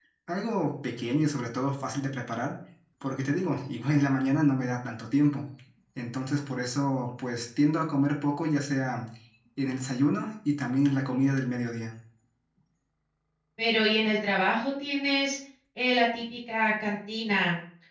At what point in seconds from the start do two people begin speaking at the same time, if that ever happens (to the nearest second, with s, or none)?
none